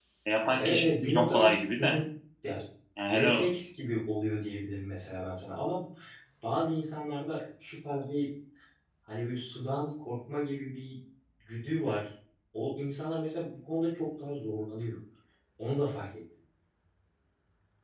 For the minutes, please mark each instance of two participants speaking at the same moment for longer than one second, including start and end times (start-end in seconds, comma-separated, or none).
0.6-2.0